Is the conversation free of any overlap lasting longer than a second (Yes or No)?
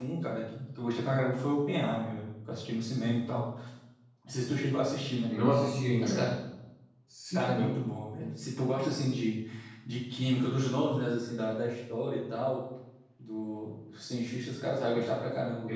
Yes